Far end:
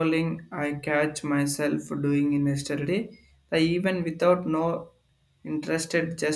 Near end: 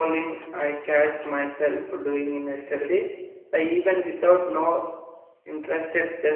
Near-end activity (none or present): none